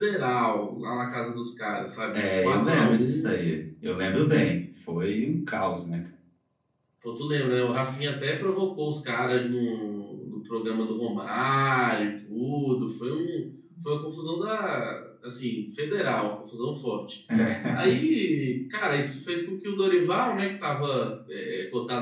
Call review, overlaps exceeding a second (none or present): present